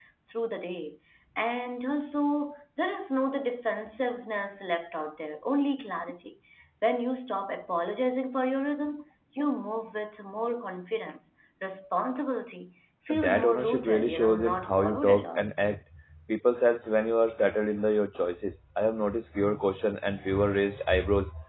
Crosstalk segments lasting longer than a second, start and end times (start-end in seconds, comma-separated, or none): 13.1-15.4